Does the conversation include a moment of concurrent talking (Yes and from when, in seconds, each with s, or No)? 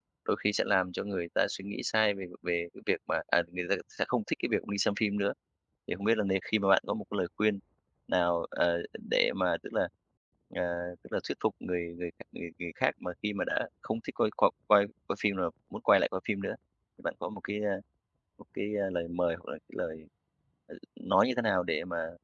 No